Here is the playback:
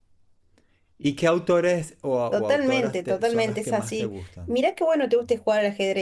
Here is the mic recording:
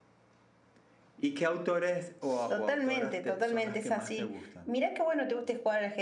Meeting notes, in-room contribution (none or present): none